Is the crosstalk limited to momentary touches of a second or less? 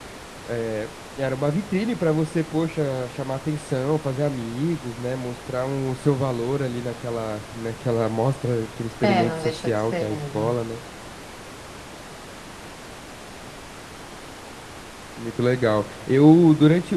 No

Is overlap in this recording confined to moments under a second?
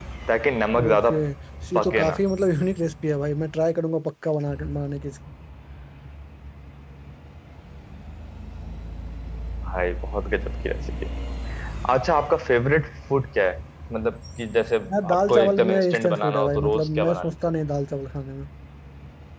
No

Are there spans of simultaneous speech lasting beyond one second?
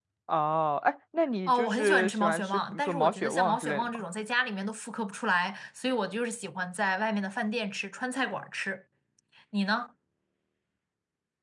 Yes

